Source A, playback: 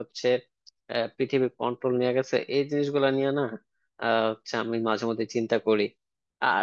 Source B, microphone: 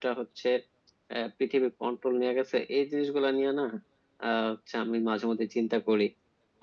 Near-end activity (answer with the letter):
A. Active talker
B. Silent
B